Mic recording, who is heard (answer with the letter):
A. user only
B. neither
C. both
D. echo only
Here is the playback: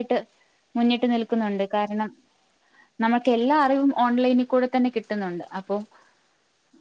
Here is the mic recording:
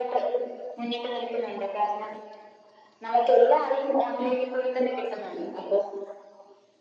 D